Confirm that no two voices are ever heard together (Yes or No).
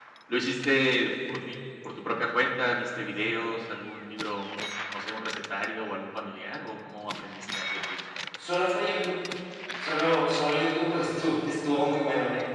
Yes